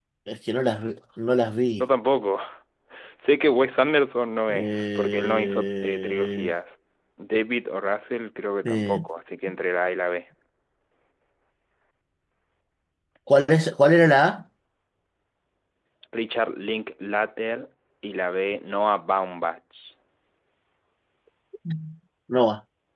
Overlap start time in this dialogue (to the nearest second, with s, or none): 5 s